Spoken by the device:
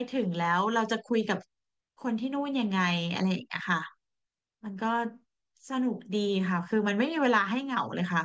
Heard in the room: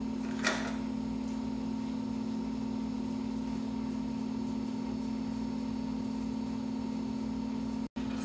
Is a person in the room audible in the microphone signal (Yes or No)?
No